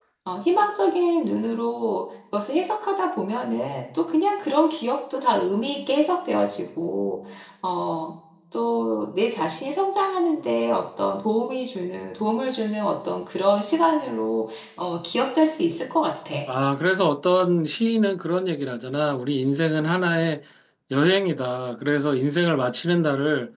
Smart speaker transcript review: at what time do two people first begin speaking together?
none

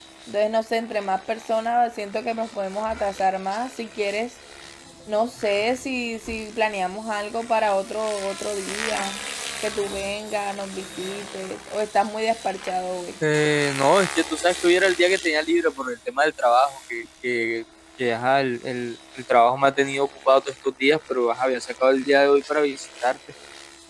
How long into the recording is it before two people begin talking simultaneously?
none

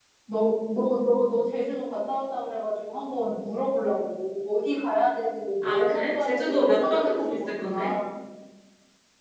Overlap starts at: 5.6 s

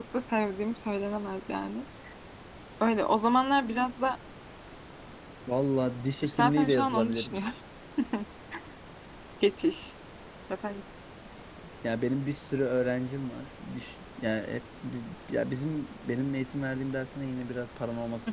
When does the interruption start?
6.2 s

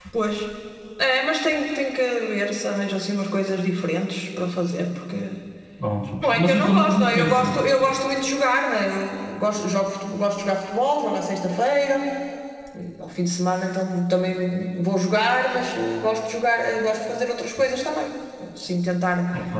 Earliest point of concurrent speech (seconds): 6.2 s

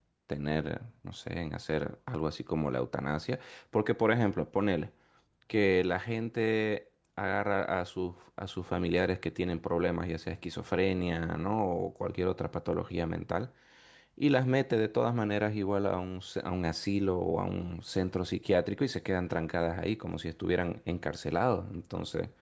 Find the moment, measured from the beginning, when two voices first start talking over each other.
none

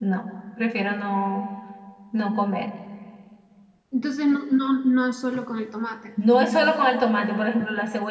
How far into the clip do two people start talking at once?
none

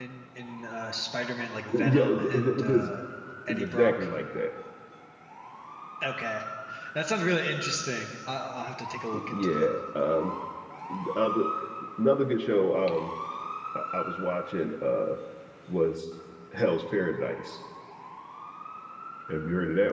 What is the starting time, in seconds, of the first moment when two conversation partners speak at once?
1.7 s

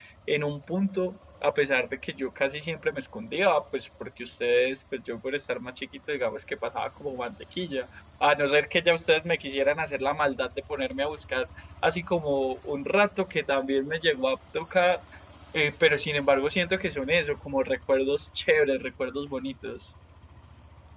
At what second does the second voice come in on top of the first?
none

